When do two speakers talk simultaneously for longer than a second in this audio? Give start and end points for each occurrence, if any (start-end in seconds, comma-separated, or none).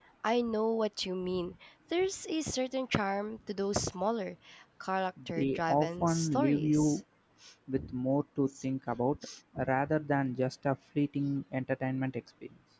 5.4-7.0